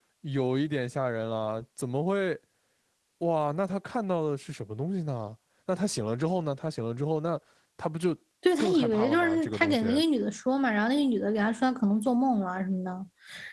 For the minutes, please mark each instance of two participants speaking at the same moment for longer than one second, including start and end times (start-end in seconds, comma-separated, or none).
8.6-9.8